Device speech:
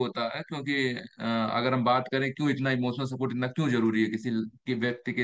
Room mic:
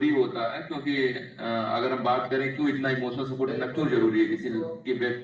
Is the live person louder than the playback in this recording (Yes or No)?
No